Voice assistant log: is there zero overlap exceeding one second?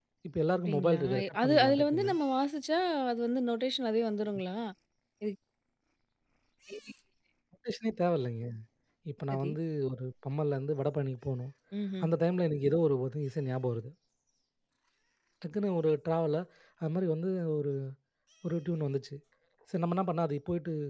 No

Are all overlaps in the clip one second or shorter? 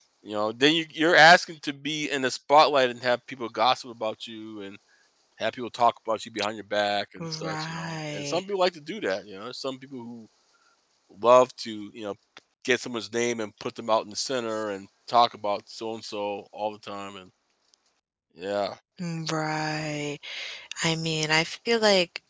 No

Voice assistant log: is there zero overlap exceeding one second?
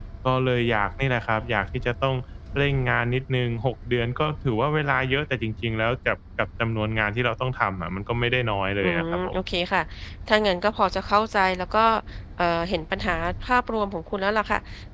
Yes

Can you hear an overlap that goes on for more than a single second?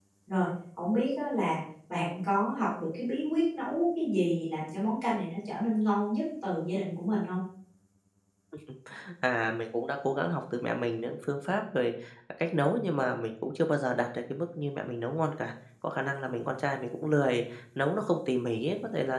No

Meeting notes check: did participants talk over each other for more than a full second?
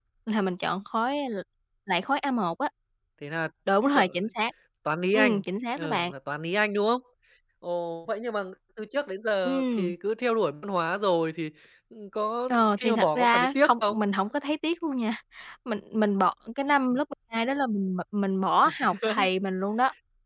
Yes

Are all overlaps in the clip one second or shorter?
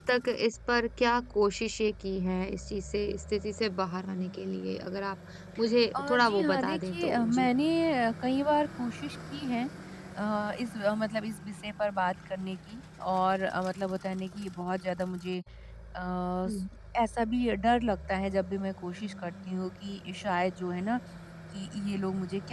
No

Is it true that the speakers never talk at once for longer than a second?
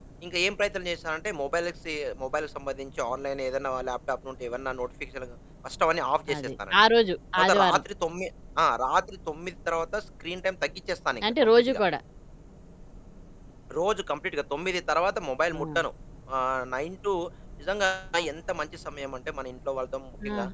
Yes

